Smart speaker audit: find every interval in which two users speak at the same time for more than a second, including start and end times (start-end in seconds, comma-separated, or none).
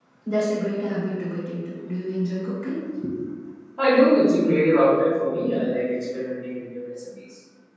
none